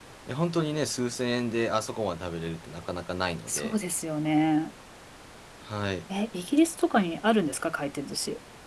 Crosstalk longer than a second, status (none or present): none